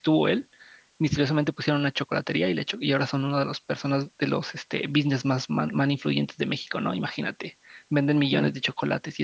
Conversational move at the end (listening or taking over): listening